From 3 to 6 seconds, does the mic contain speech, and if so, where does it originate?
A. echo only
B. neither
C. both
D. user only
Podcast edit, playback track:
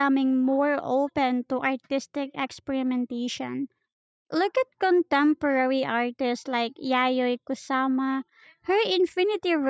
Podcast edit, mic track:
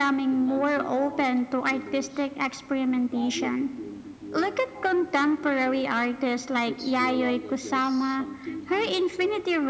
C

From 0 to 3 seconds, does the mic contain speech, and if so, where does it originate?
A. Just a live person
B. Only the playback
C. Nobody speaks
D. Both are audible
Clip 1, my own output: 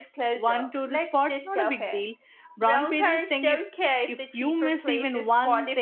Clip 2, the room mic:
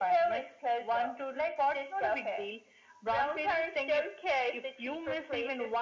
B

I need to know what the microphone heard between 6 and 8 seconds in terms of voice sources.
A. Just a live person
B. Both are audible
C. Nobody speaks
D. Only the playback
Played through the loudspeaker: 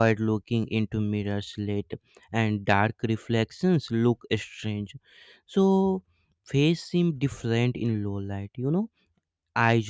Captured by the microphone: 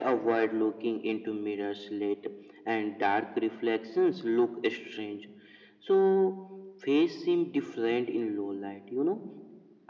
D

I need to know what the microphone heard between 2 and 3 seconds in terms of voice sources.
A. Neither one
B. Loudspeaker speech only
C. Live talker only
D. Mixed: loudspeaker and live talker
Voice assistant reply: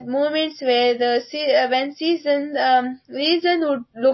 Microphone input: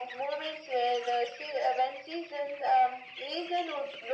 B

